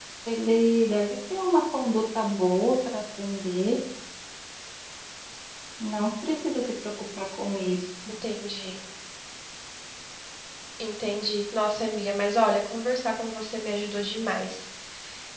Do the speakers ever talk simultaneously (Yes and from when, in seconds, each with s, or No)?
No